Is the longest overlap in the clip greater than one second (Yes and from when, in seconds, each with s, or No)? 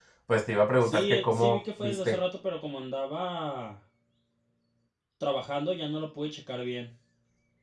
Yes, from 0.9 s